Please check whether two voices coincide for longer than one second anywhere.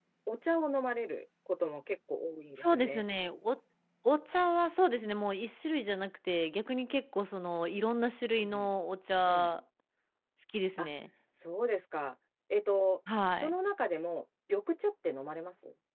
No

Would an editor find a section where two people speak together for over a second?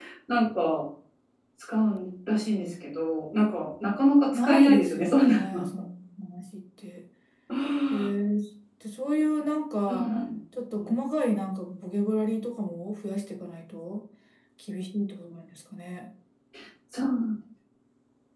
Yes, from 4.3 s

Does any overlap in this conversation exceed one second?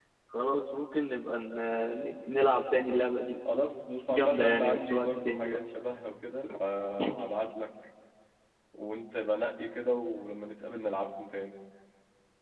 Yes, from 4.1 s

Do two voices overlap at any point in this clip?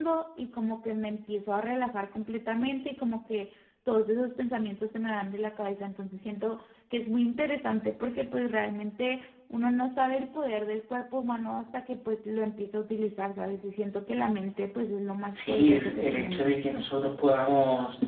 Yes, from 15.3 s

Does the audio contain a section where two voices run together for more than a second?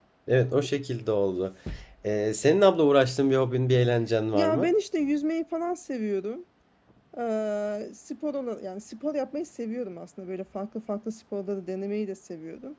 No

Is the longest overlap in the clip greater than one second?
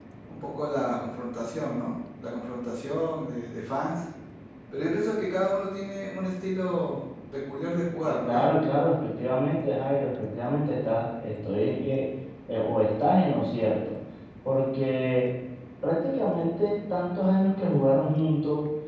No

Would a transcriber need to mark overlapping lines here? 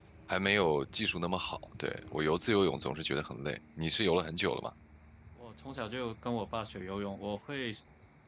No

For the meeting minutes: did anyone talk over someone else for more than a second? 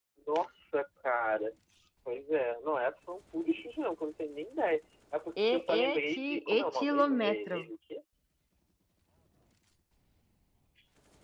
Yes, from 5.4 s

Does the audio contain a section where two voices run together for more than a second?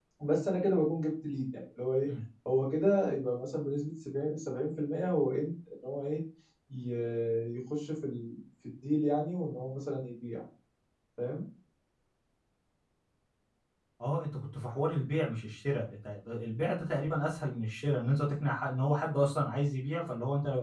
No

